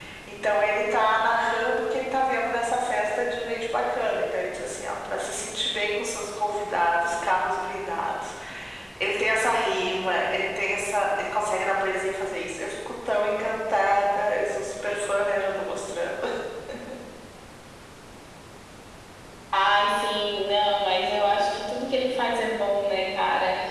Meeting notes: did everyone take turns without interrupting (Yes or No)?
Yes